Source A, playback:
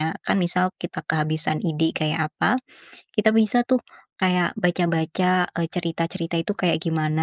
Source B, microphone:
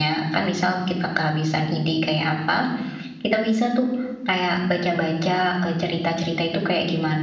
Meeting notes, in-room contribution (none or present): none